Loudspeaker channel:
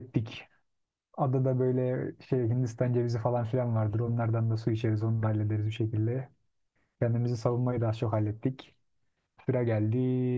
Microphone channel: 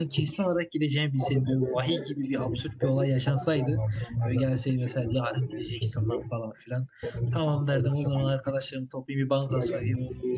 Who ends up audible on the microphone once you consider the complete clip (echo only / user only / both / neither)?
both